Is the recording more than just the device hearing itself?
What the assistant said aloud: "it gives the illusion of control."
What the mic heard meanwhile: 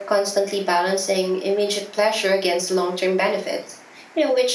Yes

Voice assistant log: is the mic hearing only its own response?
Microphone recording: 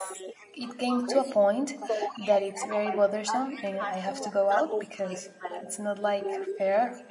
No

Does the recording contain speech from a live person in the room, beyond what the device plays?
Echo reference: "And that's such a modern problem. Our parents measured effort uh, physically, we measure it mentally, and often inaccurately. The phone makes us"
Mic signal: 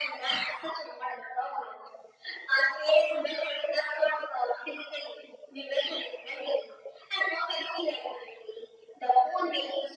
No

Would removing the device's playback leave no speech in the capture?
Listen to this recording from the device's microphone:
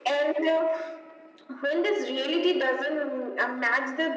Yes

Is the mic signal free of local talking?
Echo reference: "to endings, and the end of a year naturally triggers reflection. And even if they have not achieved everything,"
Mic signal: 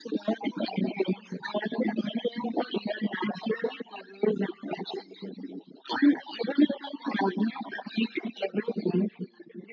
Yes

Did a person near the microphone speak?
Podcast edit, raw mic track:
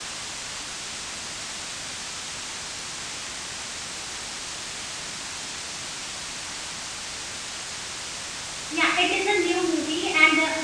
Yes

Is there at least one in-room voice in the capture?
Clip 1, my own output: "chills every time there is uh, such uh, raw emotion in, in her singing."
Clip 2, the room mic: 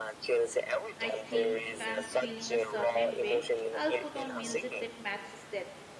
Yes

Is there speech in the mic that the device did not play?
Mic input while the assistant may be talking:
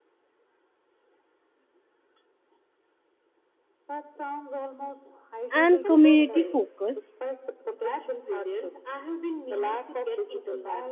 Yes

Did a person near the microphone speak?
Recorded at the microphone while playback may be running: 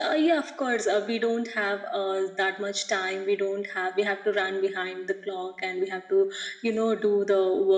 No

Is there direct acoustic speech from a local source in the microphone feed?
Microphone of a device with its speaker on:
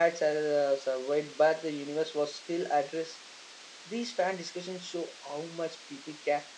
Yes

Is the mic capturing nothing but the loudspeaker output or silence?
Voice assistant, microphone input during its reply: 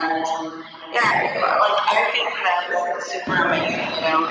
Yes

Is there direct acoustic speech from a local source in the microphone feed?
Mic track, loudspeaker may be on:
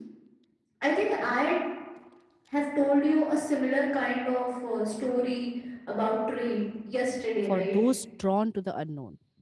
Yes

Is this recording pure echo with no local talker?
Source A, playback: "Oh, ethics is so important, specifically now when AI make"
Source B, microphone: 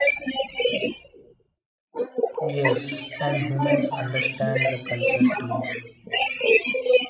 No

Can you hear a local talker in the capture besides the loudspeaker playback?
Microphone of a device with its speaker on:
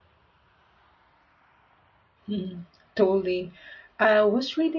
Yes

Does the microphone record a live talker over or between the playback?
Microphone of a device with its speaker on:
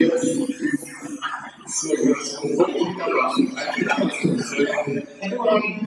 No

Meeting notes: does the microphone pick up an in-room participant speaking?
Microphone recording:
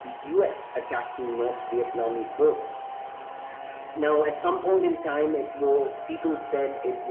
No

